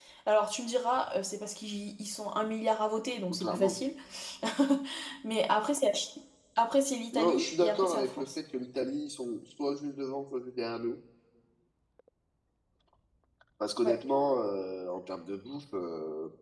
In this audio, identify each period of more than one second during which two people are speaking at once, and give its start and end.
7.1-8.4

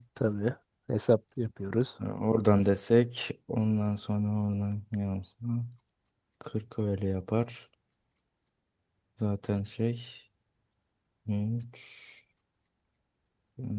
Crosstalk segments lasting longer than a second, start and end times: none

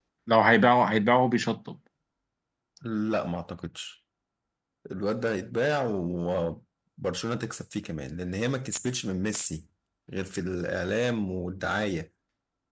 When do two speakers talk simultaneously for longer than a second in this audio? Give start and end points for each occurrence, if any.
none

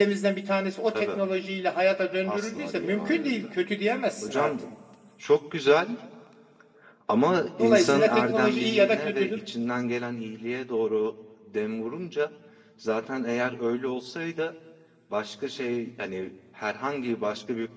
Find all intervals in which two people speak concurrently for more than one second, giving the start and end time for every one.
2.2-3.5, 7.6-9.4

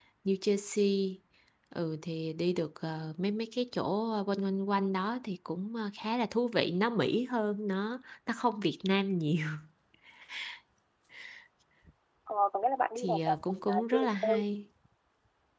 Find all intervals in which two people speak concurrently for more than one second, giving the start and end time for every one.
13.0-14.4

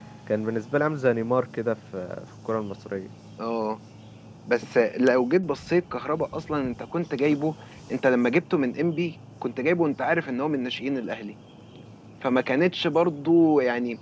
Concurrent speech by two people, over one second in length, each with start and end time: none

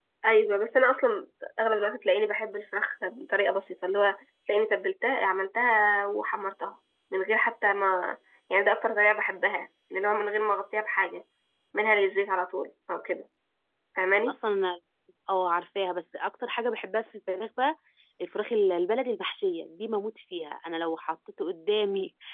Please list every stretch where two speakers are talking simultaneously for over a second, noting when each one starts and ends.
none

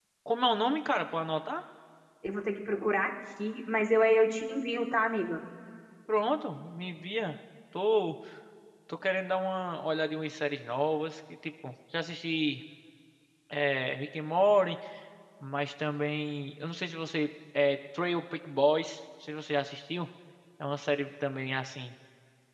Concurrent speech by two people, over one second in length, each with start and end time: none

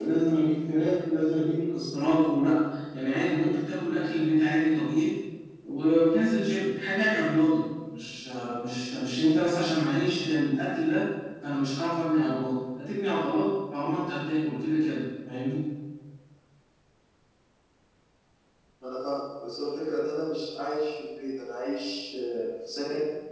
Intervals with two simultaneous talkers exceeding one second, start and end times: none

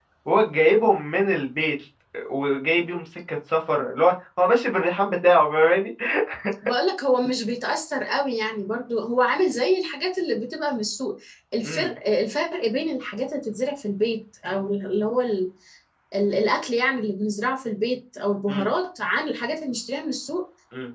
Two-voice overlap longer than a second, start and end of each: none

